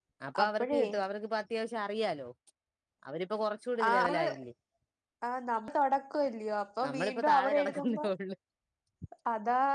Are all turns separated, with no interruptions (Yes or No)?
No